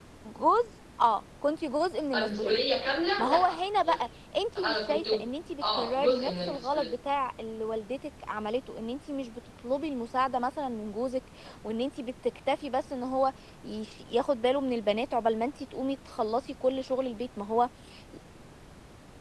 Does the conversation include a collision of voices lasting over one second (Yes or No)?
Yes